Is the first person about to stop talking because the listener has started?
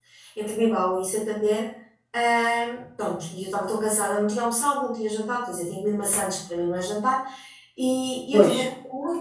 No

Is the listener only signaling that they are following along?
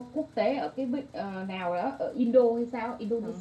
No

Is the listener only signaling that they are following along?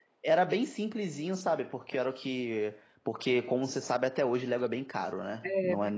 Yes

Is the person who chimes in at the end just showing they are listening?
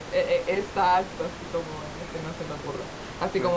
Yes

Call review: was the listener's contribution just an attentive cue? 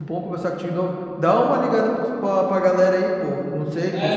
No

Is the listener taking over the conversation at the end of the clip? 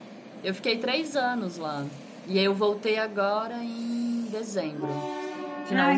Yes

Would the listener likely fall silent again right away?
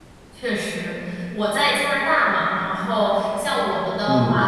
Yes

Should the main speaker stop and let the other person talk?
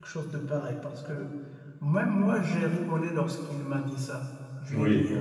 No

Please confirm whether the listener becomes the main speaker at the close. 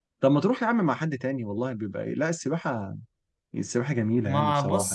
Yes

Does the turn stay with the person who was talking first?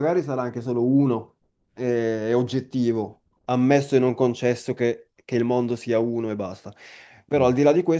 Yes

